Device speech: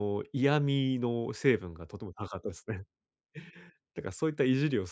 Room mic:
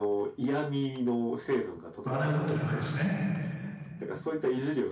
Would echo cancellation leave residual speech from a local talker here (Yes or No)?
Yes